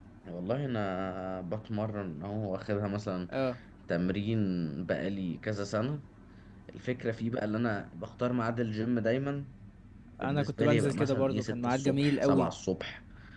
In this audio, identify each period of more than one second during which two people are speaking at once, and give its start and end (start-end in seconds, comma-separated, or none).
10.2-12.5